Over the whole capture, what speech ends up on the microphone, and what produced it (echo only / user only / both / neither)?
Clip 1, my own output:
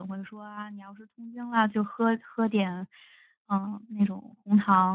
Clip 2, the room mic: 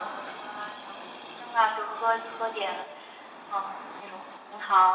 echo only